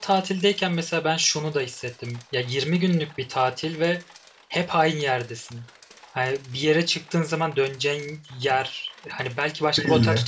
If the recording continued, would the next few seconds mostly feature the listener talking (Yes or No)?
No